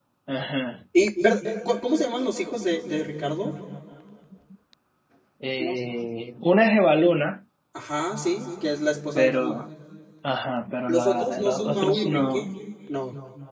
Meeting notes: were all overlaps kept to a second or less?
No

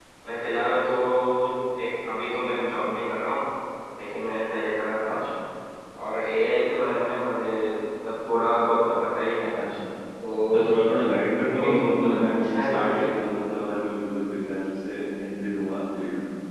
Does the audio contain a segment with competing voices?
Yes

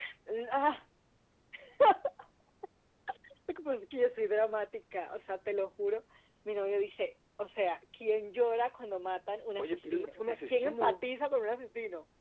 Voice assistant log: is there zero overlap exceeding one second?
No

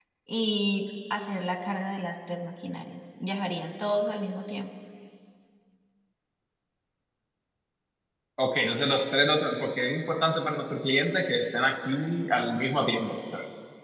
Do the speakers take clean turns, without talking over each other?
Yes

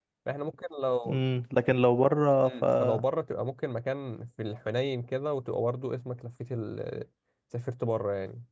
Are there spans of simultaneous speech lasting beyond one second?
No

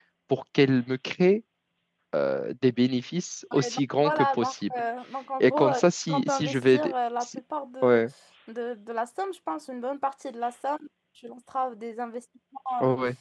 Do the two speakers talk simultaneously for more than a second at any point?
Yes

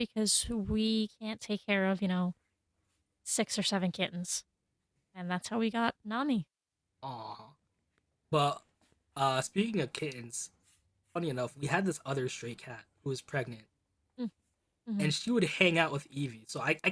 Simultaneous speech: No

